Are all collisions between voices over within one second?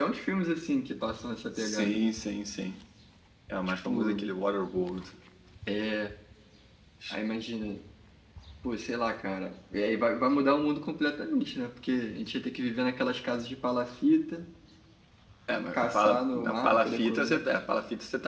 No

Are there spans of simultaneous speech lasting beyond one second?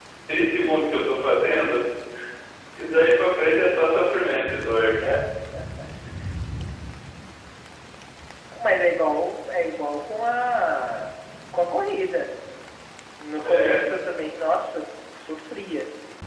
No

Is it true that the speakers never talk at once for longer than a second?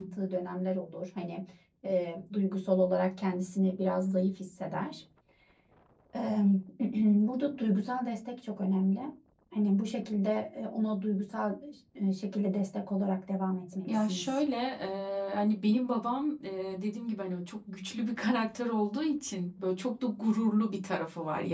Yes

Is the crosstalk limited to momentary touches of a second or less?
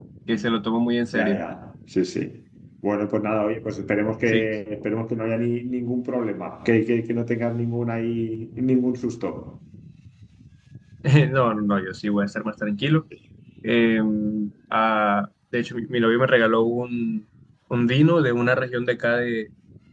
Yes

